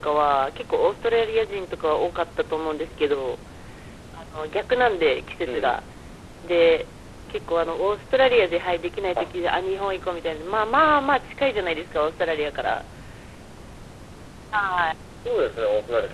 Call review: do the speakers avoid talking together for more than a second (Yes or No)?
Yes